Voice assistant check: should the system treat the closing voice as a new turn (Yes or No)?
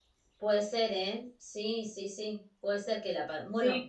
No